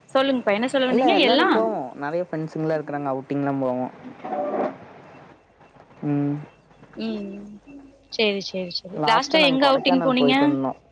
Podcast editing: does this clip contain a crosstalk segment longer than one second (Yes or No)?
Yes